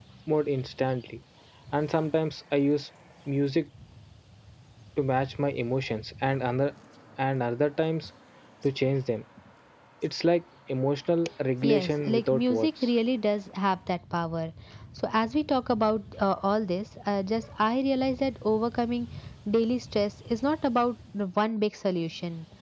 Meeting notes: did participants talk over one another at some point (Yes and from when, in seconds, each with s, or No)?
Yes, from 11.6 s